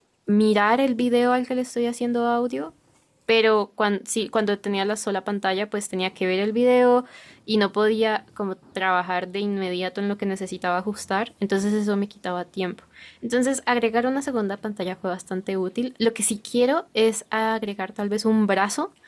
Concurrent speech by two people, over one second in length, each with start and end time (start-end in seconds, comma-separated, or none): none